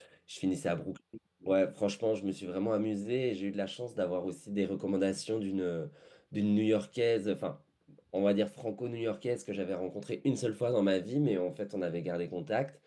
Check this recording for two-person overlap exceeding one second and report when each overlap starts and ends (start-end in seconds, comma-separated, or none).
none